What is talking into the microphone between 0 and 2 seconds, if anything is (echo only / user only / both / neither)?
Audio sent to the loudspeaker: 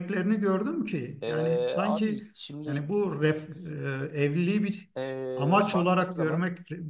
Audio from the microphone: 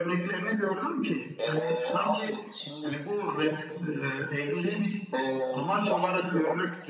echo only